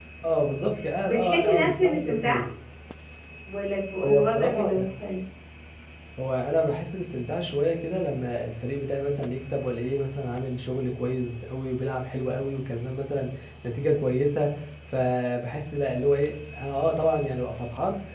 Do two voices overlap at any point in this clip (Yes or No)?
Yes